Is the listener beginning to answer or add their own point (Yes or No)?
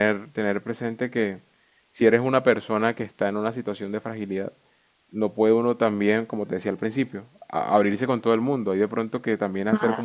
No